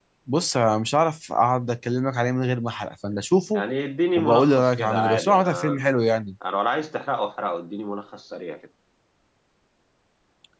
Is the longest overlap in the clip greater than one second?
Yes, from 4.2 s

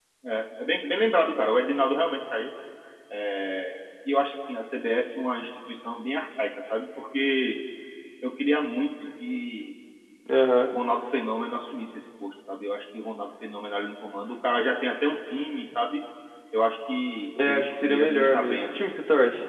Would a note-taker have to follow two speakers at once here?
Yes, from 17.4 s

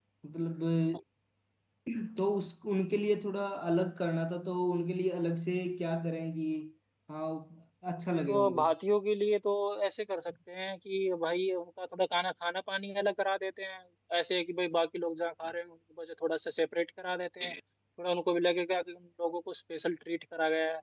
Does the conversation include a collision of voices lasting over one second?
No

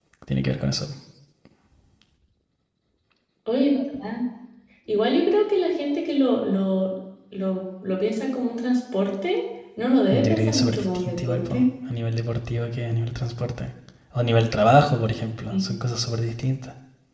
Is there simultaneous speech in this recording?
Yes, from 10.1 s

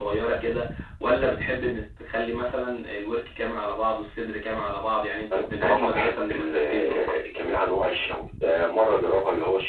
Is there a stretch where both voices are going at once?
Yes, from 5.3 s

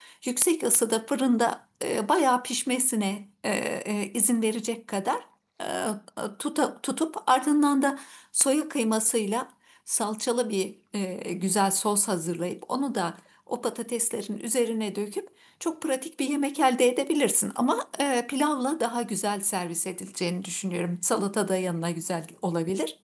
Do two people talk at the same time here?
No

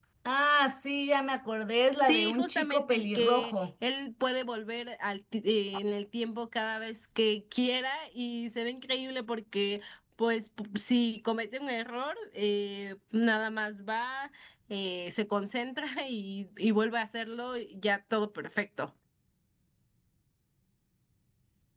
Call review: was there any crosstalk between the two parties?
Yes, from 2.0 s

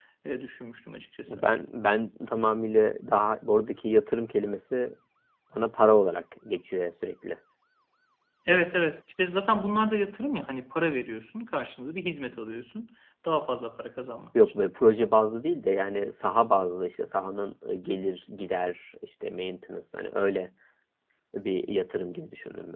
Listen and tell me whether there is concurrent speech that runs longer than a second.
No

